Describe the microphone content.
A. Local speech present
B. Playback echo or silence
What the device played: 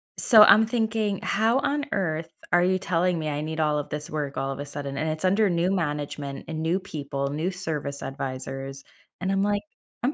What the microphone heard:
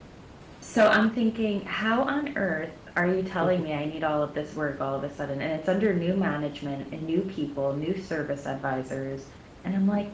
A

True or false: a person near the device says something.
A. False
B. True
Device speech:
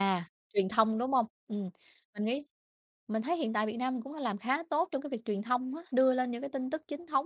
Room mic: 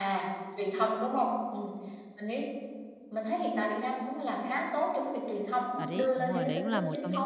B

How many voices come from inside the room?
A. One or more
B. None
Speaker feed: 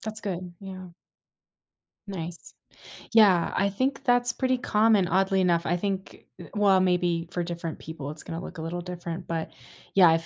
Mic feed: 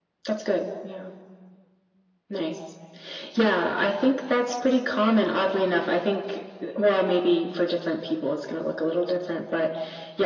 B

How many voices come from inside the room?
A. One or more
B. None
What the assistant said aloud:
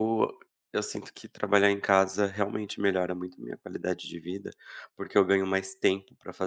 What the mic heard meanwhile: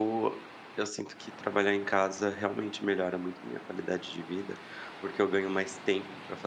B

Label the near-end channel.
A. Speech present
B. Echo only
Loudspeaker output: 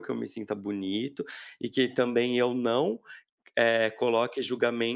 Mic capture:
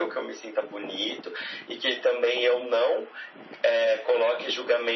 B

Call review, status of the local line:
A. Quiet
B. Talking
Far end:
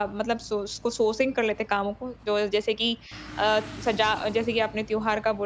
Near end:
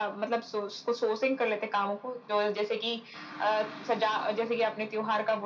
A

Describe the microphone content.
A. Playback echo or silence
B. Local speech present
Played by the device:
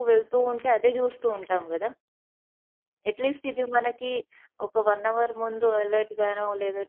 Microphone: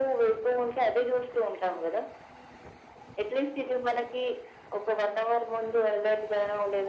A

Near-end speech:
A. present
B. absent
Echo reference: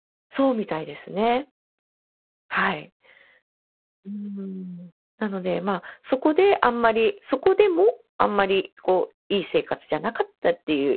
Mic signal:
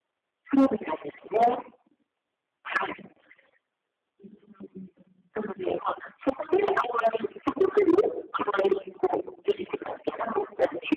B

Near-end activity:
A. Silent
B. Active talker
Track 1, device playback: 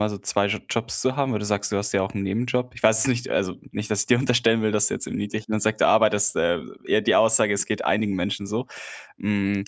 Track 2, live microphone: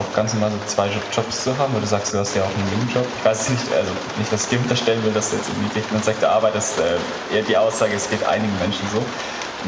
A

